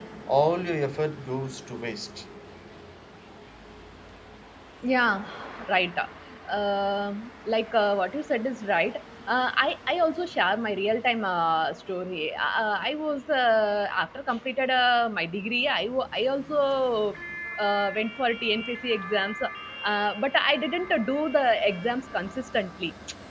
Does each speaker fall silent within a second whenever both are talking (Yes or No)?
Yes